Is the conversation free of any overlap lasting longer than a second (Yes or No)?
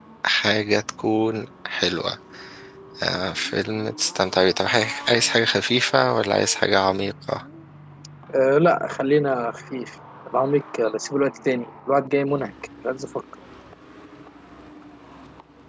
Yes